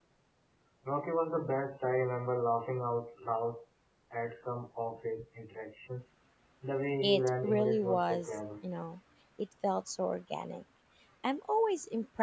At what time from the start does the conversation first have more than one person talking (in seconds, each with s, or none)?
7.0 s